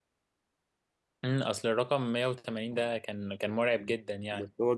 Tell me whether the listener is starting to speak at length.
Yes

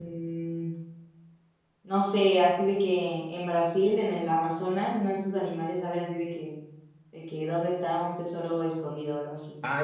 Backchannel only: No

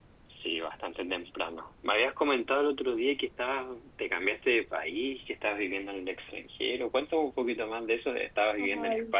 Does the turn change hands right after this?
Yes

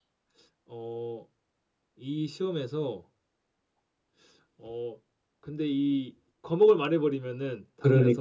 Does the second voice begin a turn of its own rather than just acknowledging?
Yes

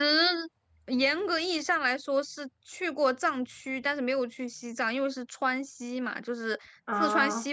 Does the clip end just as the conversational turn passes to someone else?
No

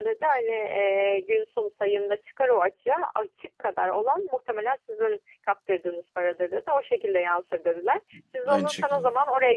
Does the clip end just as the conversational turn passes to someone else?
No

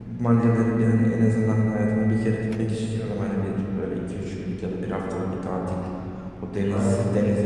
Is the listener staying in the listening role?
Yes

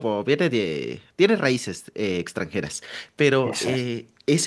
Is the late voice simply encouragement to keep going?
Yes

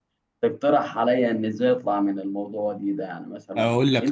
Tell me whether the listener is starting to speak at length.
Yes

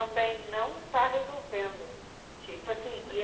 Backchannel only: Yes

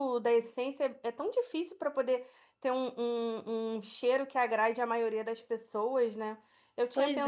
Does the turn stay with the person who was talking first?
Yes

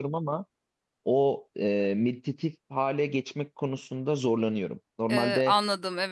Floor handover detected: Yes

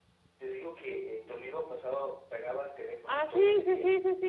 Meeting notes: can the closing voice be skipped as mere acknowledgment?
No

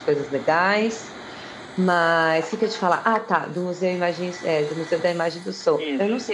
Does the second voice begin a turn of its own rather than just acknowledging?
No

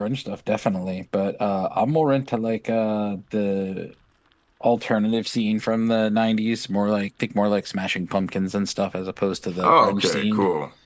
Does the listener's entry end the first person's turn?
Yes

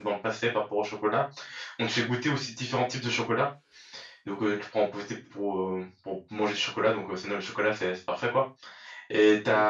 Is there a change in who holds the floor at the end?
No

